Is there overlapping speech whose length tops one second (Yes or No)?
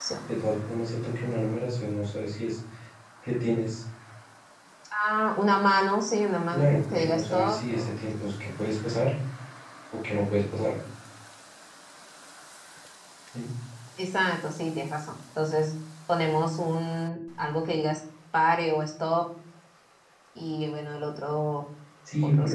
Yes